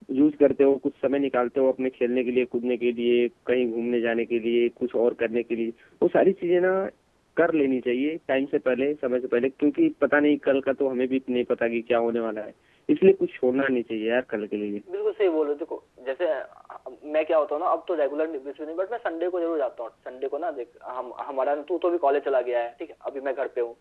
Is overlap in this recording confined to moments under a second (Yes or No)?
Yes